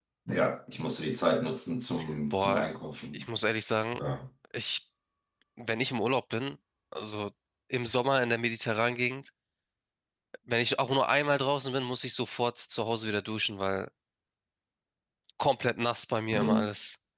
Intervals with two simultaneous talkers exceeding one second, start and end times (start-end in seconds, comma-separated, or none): none